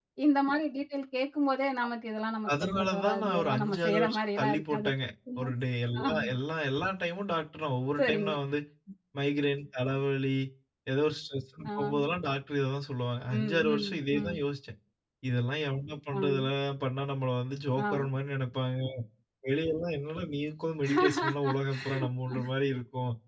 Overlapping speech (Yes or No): Yes